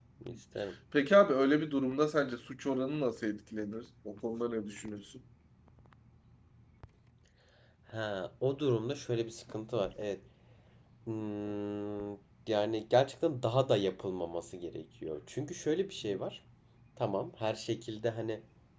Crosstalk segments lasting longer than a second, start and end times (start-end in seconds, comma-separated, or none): none